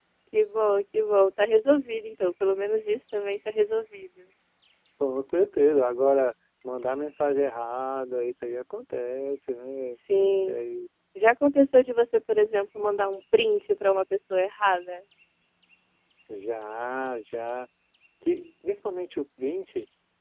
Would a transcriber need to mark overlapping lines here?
No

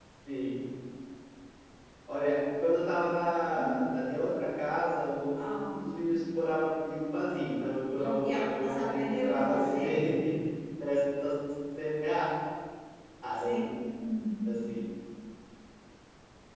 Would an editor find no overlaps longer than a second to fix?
No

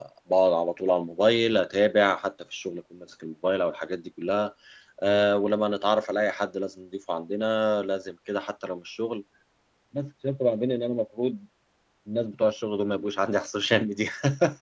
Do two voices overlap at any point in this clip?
No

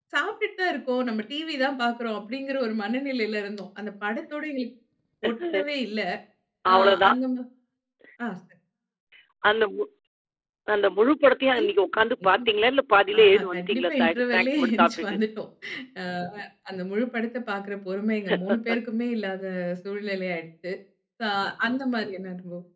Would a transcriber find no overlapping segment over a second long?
No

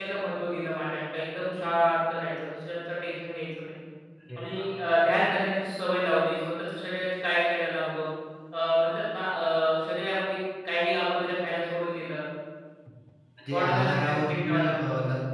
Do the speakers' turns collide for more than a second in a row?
Yes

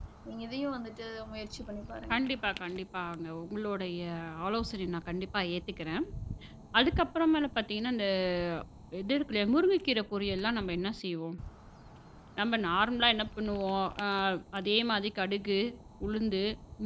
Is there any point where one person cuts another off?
No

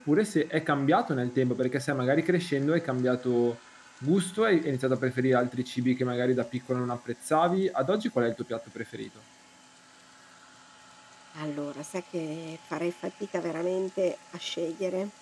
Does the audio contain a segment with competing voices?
No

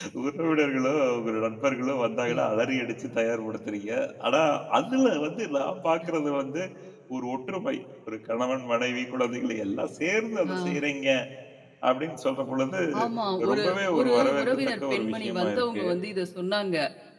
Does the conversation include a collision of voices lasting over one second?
Yes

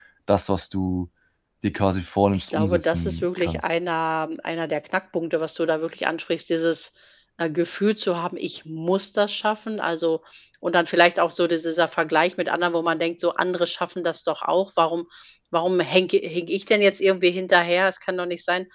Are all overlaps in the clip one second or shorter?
No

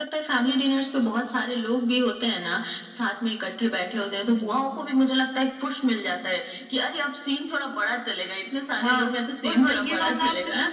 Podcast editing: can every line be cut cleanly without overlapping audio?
No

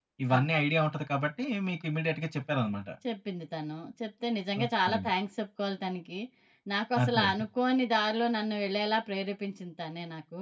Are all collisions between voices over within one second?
Yes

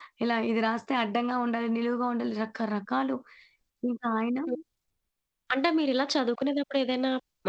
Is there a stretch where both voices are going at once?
No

